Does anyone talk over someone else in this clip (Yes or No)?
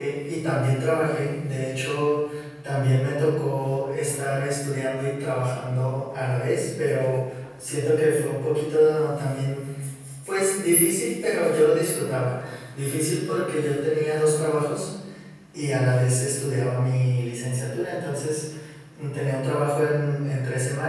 No